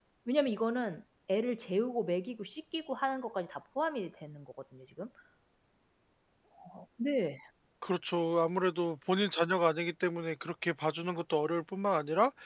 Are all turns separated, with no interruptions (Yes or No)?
Yes